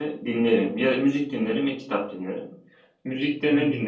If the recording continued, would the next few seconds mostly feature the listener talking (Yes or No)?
No